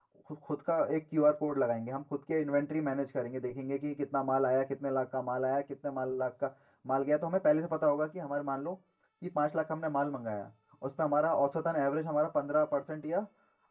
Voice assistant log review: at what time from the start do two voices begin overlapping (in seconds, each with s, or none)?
none